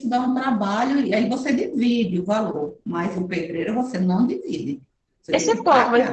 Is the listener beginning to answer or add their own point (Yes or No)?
Yes